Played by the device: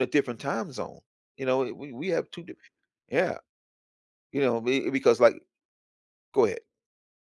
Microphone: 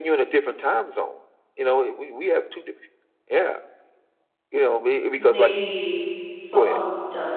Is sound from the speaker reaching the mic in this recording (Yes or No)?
Yes